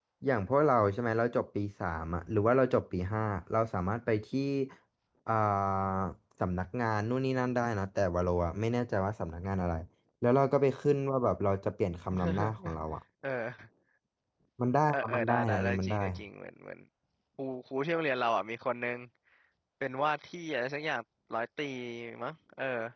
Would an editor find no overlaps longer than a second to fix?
No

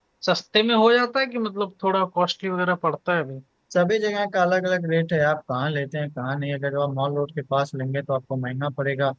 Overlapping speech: No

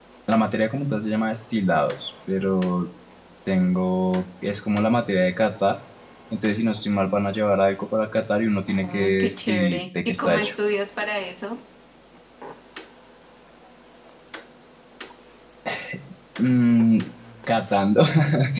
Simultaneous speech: Yes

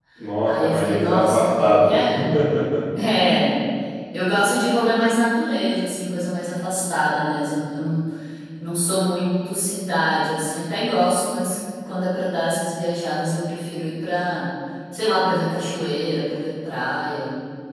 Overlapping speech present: Yes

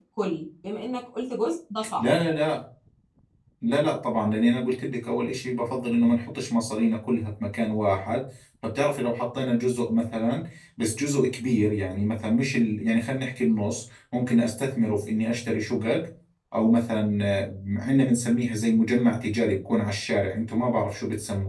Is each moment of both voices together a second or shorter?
Yes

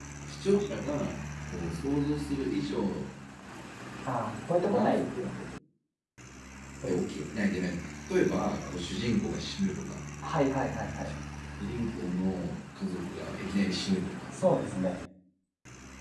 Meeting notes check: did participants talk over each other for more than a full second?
No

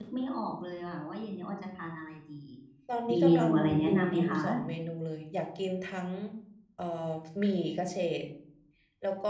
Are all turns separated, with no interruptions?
No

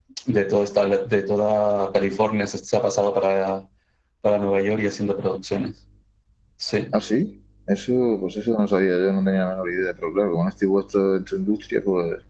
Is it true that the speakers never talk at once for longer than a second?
Yes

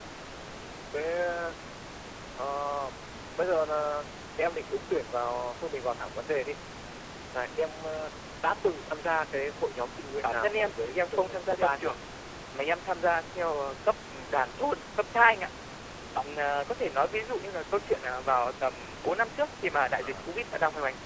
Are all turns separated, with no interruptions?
No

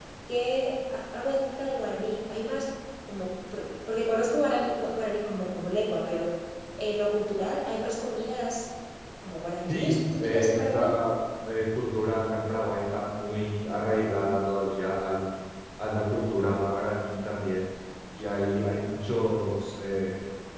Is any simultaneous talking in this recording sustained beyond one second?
Yes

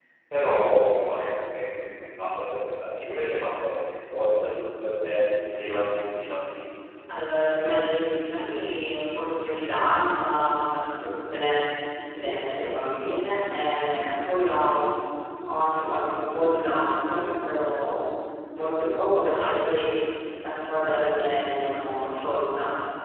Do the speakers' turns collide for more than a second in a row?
No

